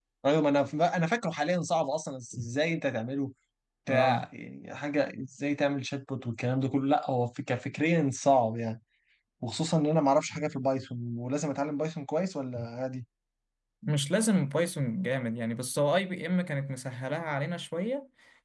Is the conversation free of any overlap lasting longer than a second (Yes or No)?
Yes